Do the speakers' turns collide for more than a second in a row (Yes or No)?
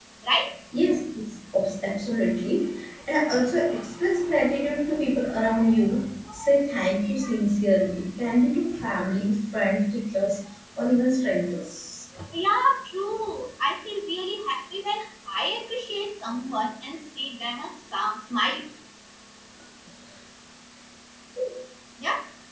No